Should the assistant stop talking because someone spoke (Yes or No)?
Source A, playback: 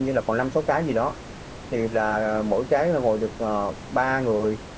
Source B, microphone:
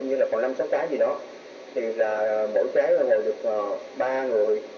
No